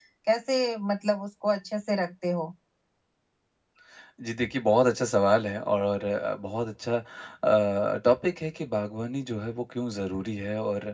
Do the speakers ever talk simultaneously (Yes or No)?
No